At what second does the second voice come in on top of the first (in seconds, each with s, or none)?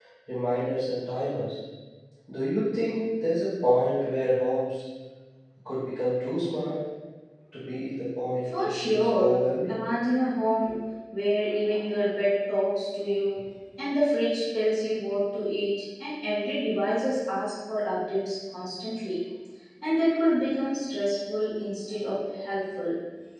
8.4 s